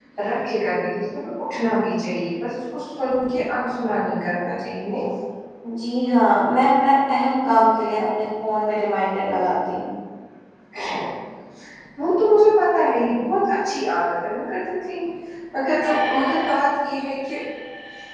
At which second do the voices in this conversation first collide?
none

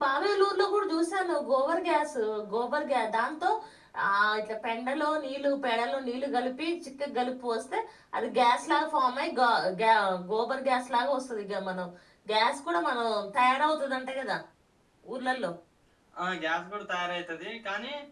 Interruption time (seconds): none

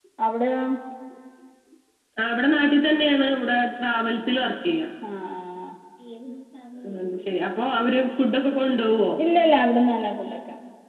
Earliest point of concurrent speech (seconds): none

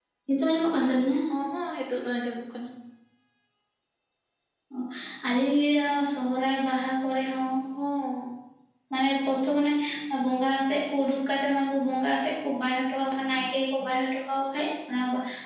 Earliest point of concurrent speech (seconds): none

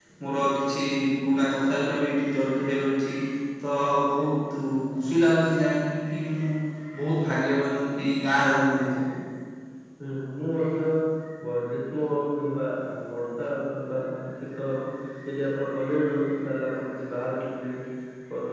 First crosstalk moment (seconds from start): none

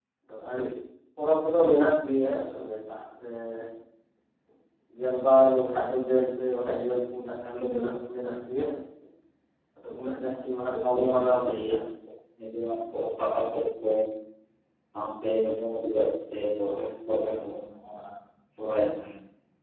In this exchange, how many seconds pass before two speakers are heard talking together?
10.3 s

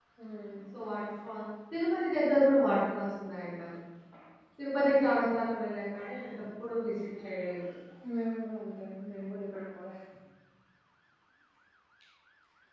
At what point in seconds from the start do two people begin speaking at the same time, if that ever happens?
none

